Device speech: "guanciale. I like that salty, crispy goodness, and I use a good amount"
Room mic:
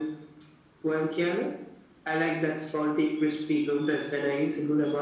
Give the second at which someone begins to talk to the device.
none

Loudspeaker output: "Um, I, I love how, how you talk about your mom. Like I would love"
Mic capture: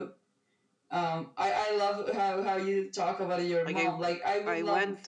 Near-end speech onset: 3.6 s

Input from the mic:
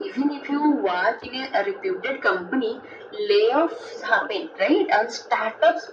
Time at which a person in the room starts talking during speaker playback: none

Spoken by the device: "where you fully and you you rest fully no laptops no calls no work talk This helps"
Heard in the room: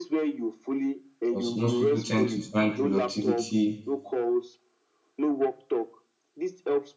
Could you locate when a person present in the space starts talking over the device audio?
1.2 s

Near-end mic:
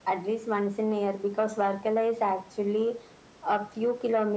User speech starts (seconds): none

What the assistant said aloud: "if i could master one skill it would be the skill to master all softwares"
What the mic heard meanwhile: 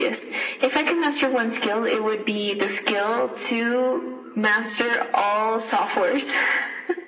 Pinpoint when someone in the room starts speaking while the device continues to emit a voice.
none

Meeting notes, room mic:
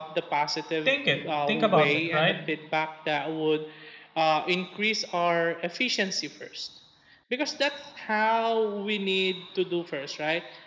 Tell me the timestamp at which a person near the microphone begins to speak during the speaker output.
0.8 s

